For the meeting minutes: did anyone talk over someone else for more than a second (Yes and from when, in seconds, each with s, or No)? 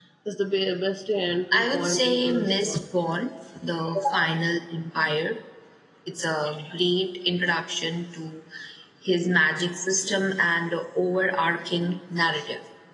Yes, from 1.5 s